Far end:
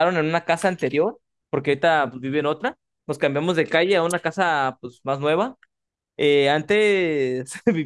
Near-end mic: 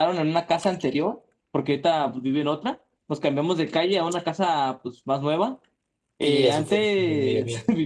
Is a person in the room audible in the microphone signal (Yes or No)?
Yes